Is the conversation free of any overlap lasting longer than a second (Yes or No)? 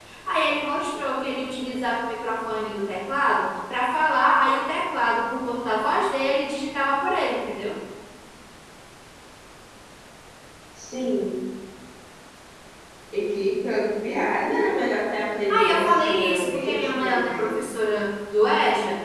No